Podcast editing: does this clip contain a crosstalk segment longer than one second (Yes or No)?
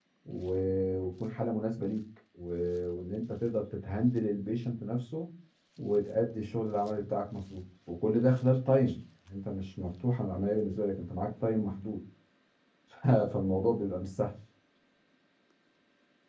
No